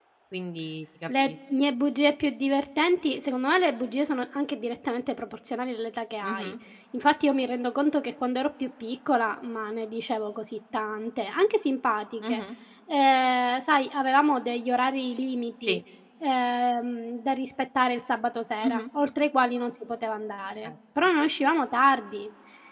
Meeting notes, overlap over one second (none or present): none